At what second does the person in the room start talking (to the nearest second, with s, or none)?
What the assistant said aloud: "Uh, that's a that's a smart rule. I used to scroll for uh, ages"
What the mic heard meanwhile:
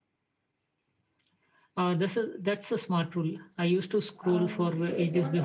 4 s